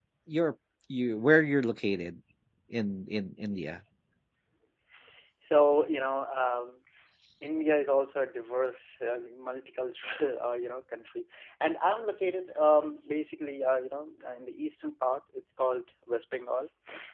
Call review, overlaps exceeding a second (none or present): none